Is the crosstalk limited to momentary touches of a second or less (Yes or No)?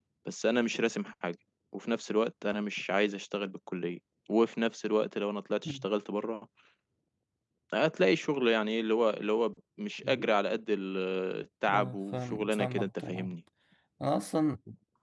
No